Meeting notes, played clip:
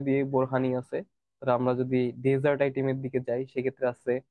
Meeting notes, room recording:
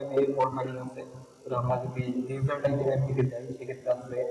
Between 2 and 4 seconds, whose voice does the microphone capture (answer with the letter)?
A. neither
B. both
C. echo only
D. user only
C